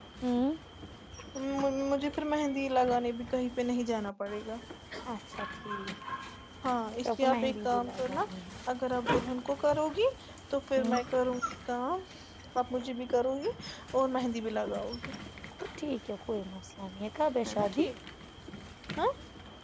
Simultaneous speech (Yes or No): Yes